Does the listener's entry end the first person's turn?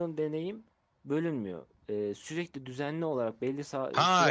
Yes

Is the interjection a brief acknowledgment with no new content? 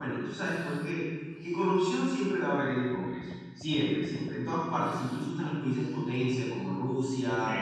Yes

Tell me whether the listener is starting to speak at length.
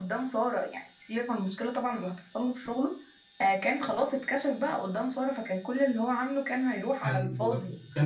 Yes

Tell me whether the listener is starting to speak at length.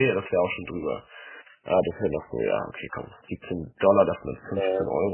No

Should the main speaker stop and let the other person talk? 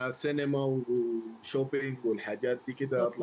Yes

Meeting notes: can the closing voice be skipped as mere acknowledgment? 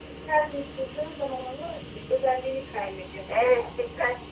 No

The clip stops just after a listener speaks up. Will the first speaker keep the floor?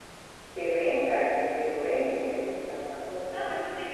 No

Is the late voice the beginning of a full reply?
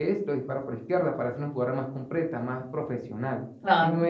Yes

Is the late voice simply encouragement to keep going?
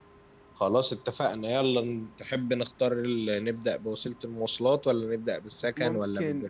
No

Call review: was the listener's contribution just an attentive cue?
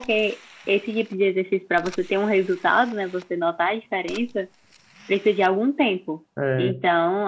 Yes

